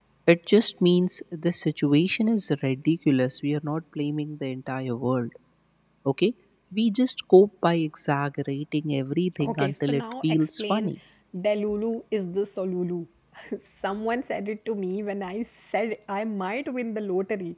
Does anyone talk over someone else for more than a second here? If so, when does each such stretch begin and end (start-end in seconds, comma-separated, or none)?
9.4-10.9